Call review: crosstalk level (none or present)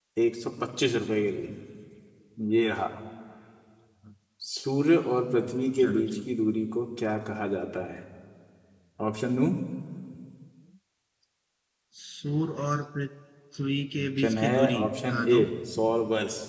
present